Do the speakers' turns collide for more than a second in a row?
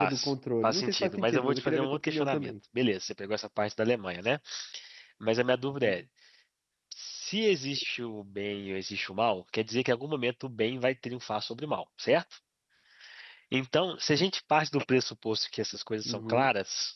Yes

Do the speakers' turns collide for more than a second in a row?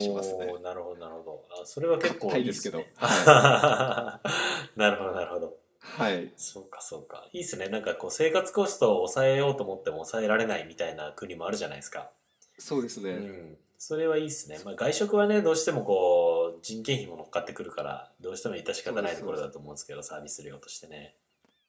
Yes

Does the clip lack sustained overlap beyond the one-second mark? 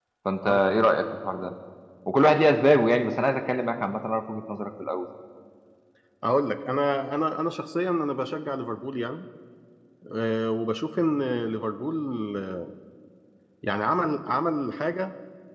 Yes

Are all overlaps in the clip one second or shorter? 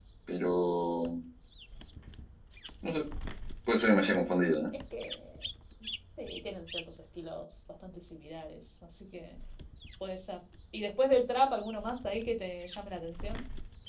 Yes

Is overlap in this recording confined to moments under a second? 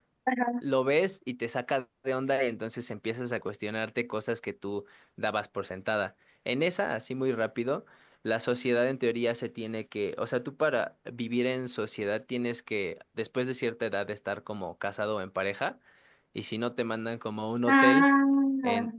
Yes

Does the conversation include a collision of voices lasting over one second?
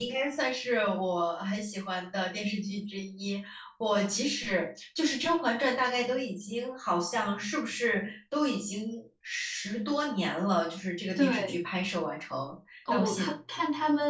No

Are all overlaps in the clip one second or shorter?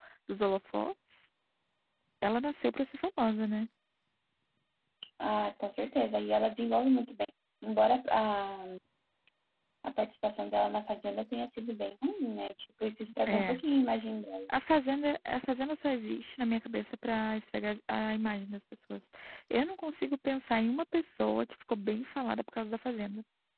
Yes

